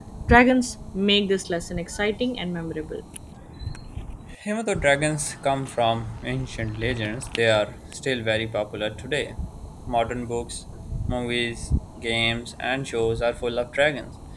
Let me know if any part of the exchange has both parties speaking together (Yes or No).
No